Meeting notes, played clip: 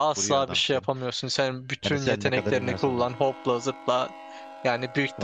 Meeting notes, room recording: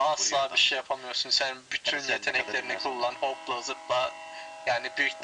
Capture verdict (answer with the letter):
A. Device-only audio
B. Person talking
A